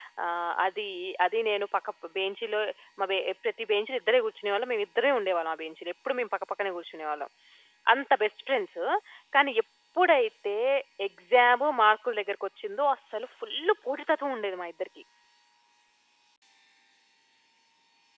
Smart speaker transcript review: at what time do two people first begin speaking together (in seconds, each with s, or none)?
none